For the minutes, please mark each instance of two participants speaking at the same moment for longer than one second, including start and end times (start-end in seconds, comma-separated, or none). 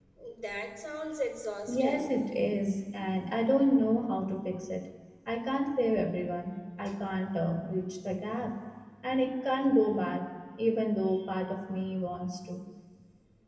none